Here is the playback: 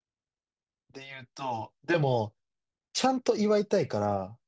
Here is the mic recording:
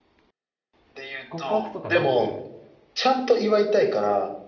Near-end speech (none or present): present